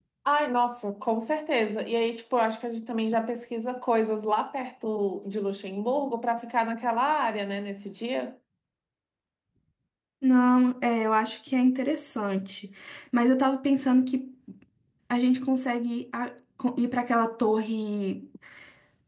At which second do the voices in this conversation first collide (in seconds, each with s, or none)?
none